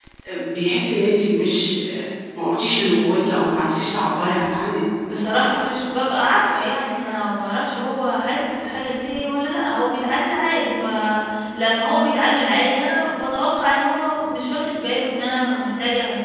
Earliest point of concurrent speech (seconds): none

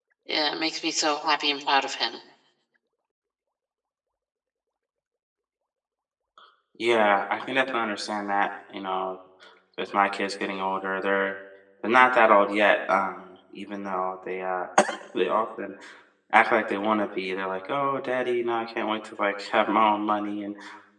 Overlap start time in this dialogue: none

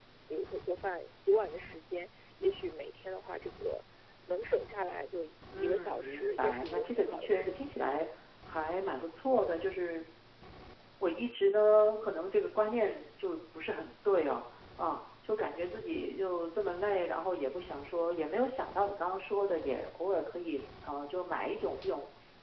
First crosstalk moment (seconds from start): 5.5 s

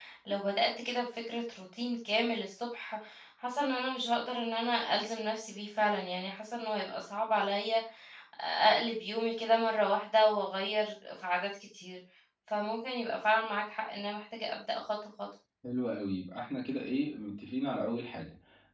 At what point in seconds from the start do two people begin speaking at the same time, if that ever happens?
none

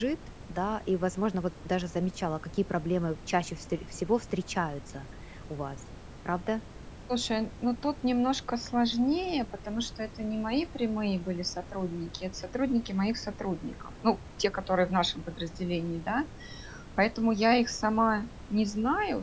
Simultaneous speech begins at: none

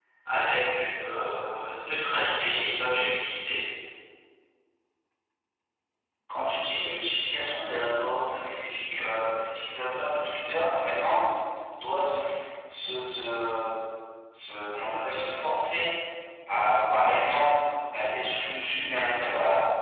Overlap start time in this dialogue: none

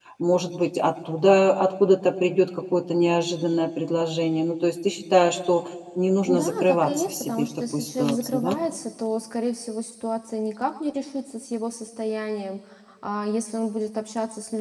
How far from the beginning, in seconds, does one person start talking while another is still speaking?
6.2 s

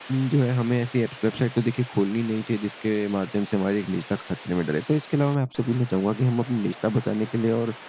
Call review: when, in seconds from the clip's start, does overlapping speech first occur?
none

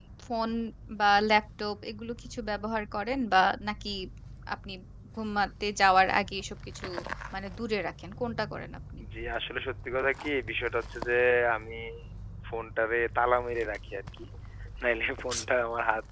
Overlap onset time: none

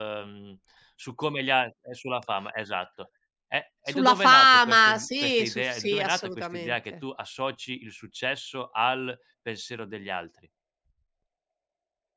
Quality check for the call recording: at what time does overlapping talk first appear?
3.9 s

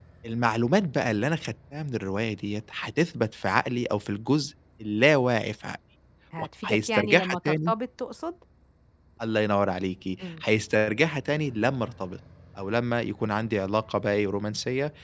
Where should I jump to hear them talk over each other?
6.4 s

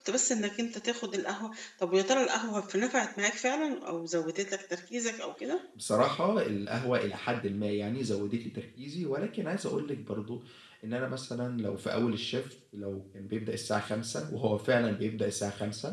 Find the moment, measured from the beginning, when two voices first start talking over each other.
none

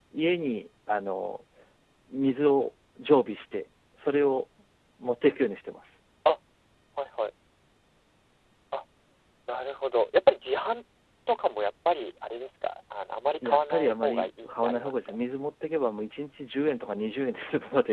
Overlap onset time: 13.4 s

